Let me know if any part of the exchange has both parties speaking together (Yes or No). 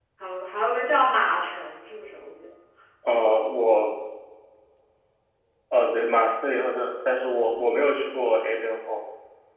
No